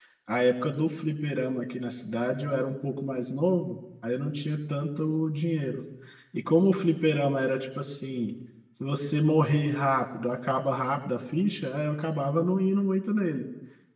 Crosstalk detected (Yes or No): No